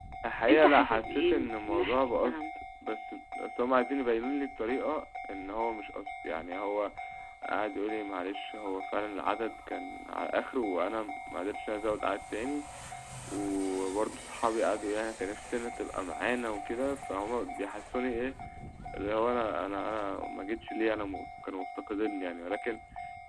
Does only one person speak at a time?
No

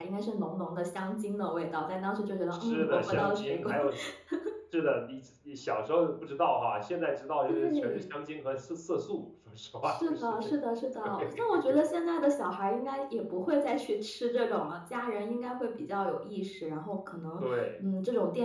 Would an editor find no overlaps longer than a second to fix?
No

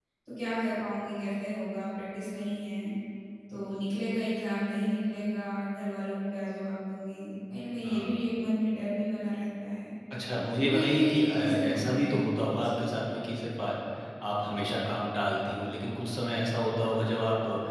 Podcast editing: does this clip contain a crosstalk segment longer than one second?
Yes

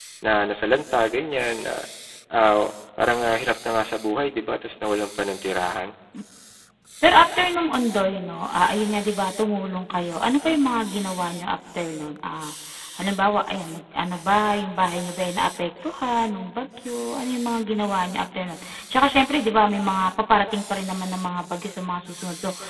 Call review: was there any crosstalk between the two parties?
No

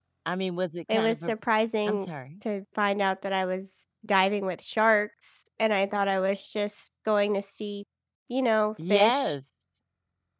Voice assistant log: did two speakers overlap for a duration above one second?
No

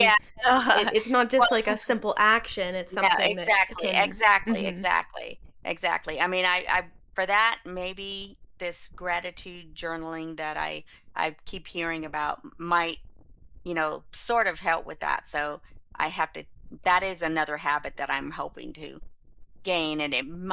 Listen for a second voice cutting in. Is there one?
Yes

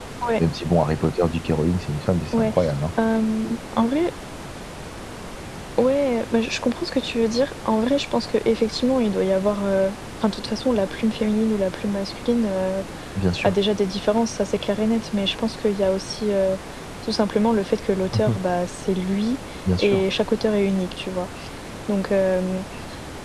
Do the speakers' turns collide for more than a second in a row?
No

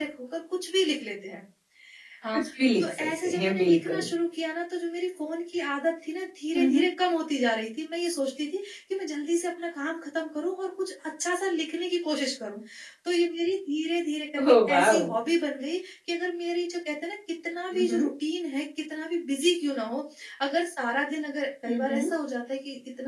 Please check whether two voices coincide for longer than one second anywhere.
Yes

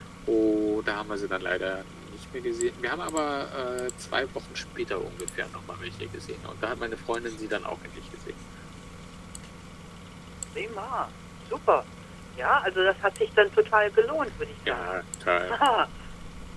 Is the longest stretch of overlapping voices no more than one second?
Yes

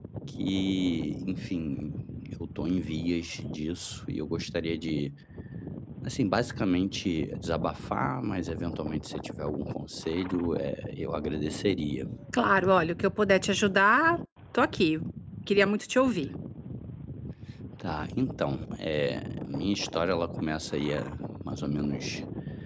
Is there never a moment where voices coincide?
Yes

